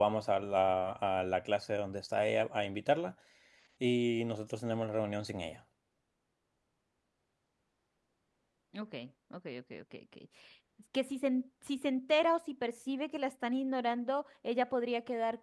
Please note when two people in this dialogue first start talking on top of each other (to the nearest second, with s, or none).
none